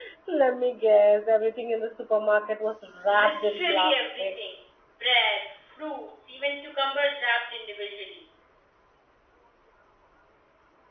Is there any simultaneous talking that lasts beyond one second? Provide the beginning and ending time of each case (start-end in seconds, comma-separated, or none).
3.1-4.4